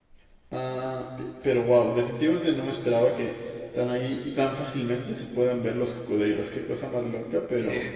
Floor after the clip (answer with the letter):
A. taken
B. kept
A